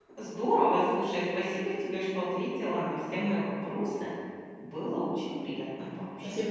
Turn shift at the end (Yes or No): Yes